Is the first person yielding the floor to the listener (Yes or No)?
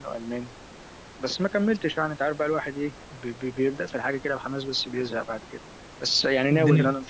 No